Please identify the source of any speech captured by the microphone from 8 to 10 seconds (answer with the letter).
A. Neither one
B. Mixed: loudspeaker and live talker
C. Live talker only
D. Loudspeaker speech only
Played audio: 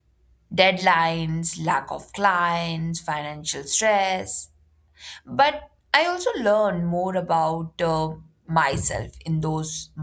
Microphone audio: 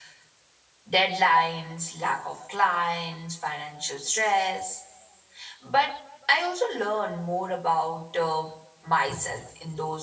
D